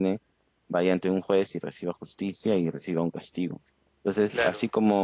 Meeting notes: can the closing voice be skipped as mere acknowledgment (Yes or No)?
Yes